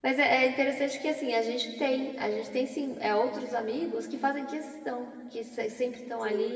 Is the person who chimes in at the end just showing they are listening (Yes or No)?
Yes